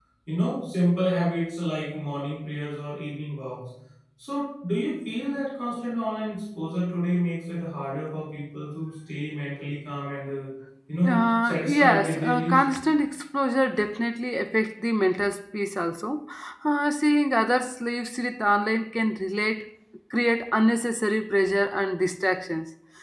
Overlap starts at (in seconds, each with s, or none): 11.1 s